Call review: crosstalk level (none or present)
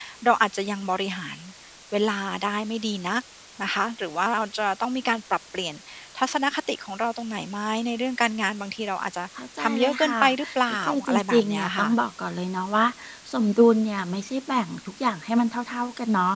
present